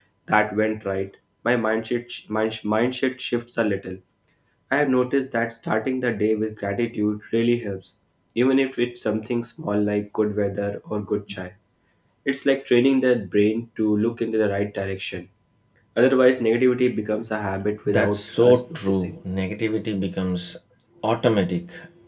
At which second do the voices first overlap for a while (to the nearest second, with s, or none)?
18 s